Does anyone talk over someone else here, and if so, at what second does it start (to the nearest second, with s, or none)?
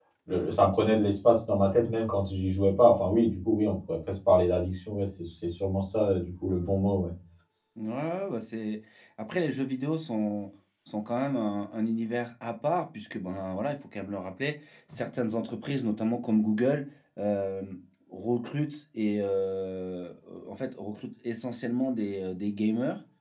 none